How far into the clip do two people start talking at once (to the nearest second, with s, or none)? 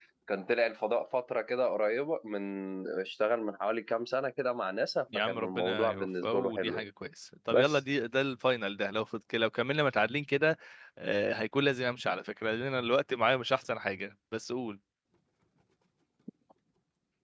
5 s